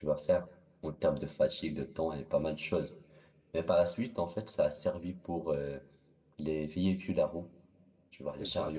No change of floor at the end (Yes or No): Yes